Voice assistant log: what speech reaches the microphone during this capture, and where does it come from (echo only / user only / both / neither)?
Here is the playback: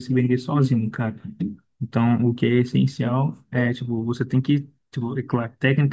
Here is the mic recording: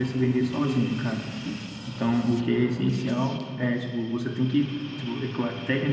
echo only